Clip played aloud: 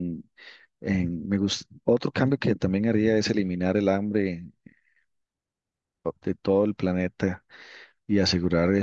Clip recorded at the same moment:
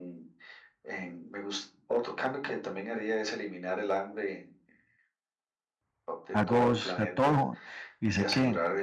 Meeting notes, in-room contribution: present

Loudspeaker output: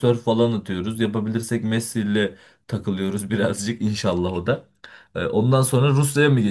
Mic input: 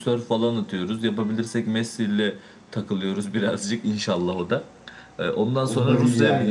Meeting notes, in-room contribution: present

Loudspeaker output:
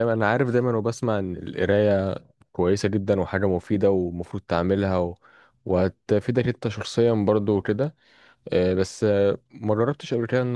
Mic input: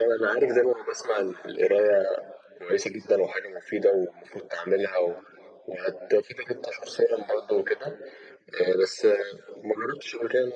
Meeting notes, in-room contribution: none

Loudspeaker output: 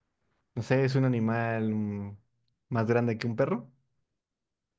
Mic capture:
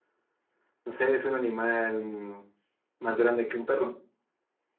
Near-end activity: none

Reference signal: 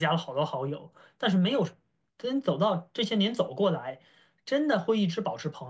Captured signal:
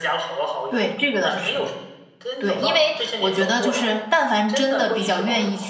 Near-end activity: present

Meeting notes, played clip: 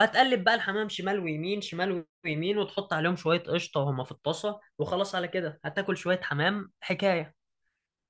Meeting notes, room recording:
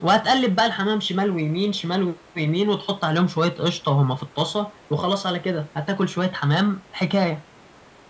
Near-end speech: none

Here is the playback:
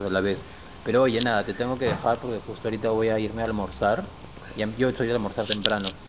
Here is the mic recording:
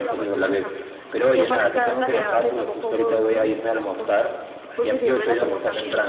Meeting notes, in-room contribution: present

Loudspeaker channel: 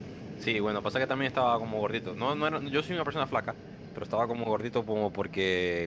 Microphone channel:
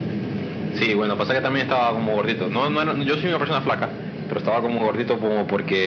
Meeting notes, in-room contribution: none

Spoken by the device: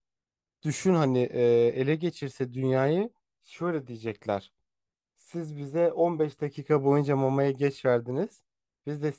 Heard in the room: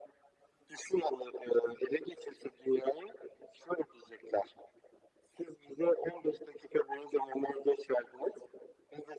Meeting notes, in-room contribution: none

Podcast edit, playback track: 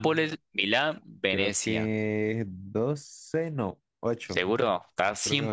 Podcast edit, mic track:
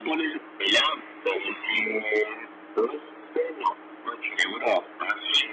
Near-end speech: none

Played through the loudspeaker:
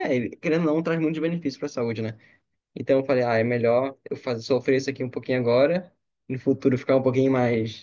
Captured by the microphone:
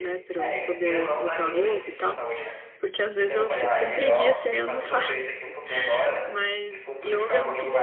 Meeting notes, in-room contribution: present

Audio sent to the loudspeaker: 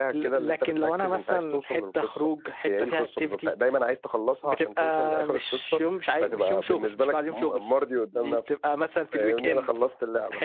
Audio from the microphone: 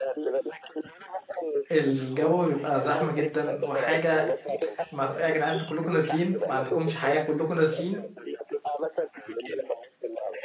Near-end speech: present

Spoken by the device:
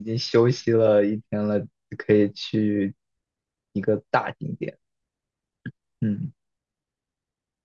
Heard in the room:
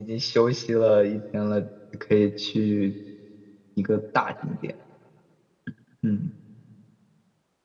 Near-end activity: none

